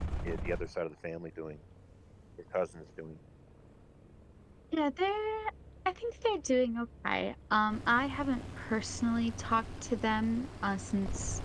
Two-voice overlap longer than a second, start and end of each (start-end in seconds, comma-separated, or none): none